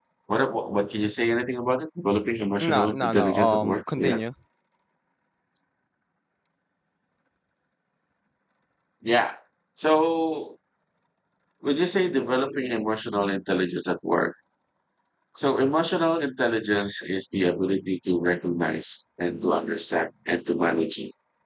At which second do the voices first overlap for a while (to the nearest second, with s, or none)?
3 s